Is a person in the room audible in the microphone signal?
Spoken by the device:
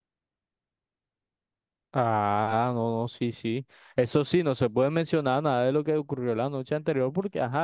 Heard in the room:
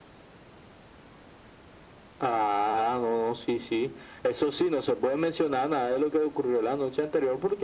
No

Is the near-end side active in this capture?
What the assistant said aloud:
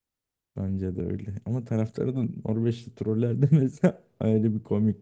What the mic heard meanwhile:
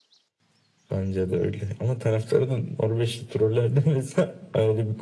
No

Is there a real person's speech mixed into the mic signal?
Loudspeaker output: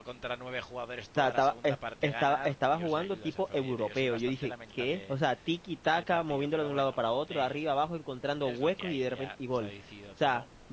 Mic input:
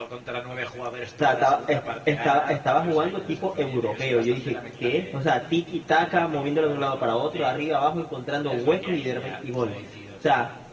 No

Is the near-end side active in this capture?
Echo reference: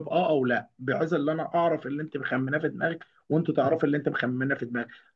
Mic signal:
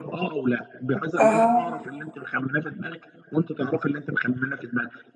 Yes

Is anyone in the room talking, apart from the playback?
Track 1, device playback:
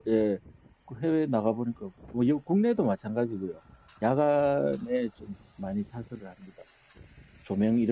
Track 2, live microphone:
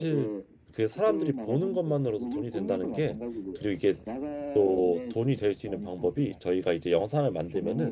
Yes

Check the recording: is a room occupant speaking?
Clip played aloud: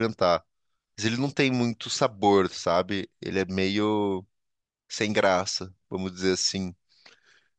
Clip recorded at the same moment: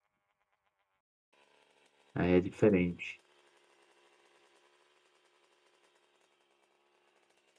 Yes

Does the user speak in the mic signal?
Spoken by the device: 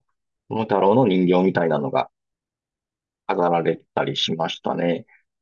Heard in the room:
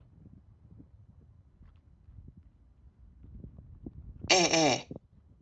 Yes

